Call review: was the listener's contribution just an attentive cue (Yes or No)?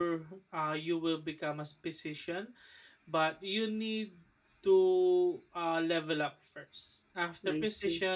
Yes